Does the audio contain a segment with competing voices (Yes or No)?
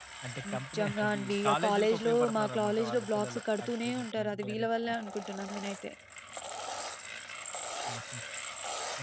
Yes